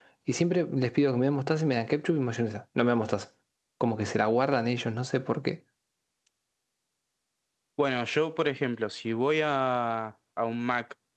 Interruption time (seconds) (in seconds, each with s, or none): none